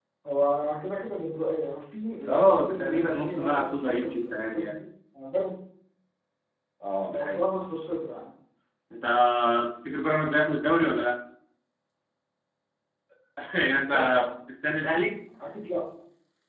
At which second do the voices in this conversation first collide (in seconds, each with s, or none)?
2.3 s